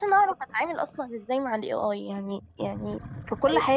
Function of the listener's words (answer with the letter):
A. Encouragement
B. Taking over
A